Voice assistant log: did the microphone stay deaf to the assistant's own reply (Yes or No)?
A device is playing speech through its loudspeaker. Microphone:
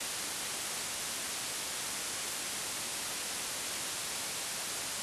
Yes